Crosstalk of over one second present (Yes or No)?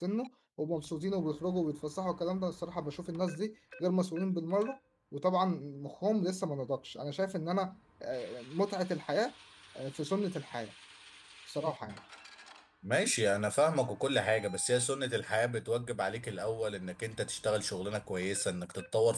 No